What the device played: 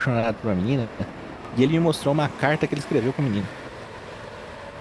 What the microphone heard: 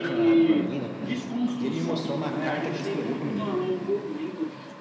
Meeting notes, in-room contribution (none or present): present